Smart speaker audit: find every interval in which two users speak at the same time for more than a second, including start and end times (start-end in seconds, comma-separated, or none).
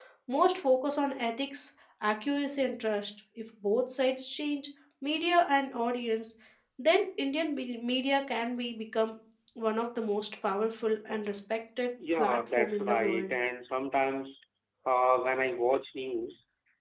12.1-13.3